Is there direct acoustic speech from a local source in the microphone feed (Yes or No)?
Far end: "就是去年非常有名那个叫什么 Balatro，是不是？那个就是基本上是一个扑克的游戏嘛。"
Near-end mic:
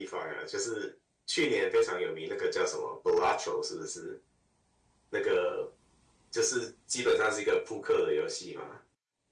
No